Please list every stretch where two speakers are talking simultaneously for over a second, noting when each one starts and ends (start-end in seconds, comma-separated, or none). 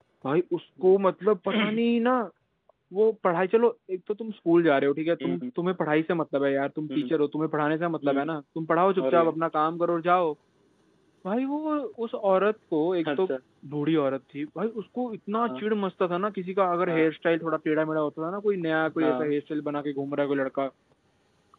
none